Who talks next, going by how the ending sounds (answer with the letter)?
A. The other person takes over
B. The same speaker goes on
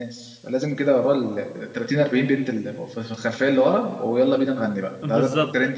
A